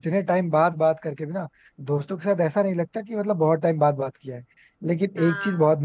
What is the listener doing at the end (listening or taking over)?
listening